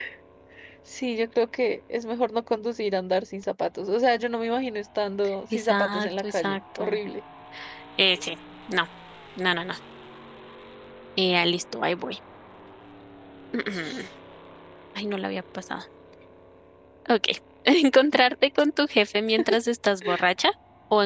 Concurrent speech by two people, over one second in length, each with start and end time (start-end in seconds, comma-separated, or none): 5.5-7.0